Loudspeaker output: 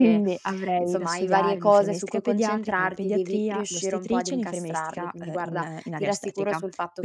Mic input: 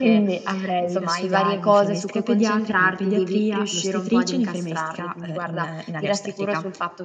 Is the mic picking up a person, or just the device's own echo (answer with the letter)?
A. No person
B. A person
A